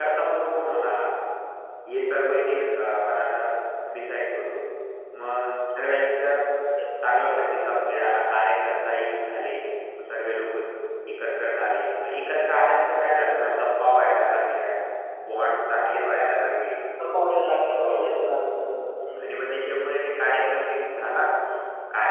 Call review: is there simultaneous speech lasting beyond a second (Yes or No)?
No